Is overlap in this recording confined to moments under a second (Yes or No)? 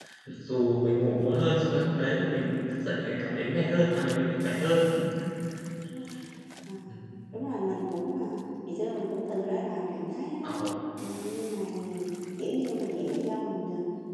Yes